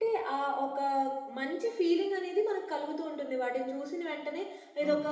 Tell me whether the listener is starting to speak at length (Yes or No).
No